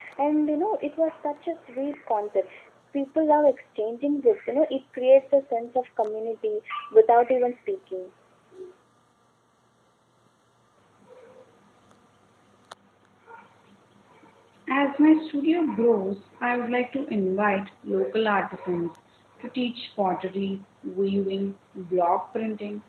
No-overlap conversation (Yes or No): Yes